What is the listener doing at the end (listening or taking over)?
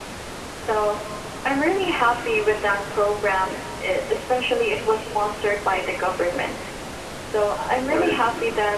listening